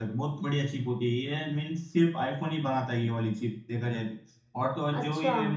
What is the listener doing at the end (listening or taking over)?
listening